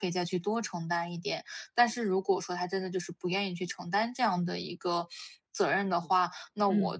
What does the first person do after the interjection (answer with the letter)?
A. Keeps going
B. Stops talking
A